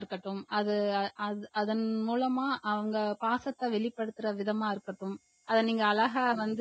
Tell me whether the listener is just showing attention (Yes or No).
Yes